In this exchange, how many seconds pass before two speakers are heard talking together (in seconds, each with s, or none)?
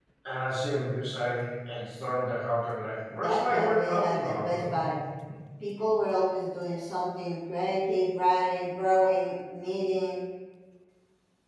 3.1 s